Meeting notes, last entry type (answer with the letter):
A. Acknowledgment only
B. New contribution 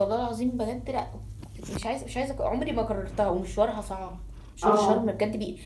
A